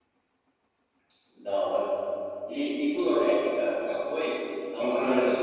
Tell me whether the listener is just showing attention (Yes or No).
No